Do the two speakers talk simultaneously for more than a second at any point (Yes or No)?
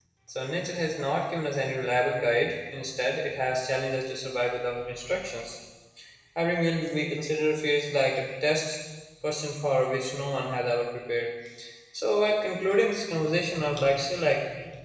No